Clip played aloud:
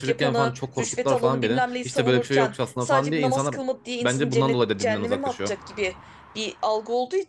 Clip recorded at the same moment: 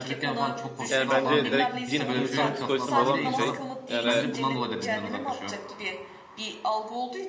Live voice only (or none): Yani bence direkt din insanın psikolojisini bozan bir şey. Yani